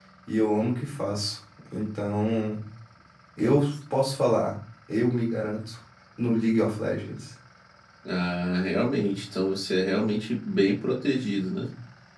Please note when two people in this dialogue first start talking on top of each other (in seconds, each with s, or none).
none